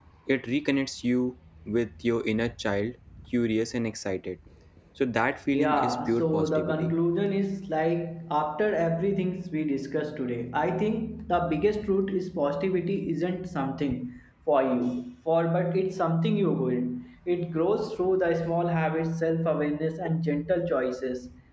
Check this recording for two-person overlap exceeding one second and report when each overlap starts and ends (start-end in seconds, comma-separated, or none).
5.5-6.9